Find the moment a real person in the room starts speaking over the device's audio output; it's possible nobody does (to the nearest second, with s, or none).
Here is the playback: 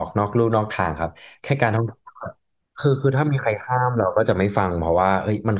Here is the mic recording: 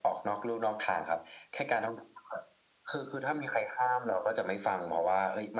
none